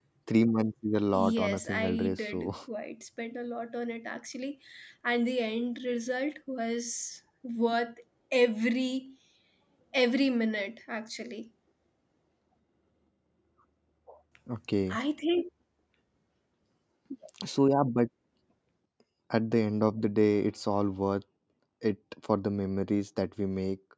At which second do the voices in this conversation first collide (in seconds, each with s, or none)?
1.1 s